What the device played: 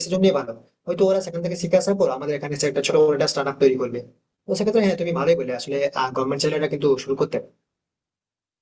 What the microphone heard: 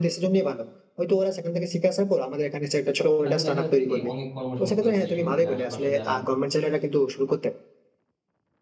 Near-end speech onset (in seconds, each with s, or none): 3.2 s